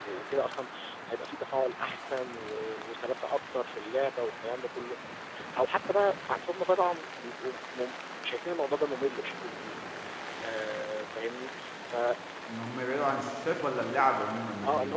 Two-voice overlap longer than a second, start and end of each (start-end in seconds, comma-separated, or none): none